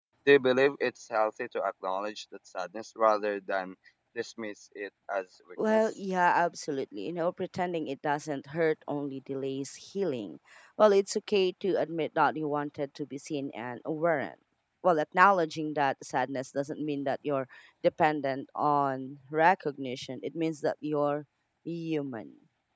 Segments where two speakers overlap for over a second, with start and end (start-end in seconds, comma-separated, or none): none